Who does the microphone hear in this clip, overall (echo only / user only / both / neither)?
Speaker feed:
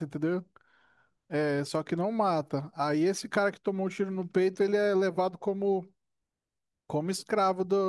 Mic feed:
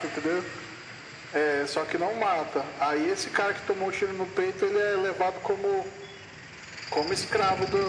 echo only